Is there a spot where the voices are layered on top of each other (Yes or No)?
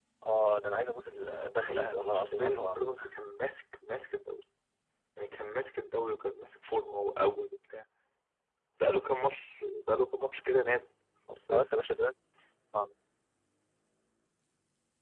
Yes